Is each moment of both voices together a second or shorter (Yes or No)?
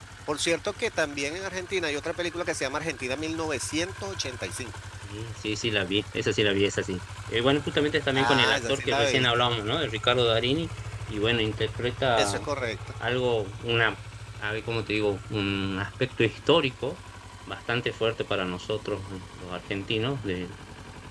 No